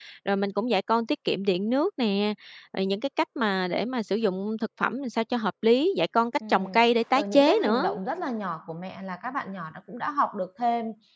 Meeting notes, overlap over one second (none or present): present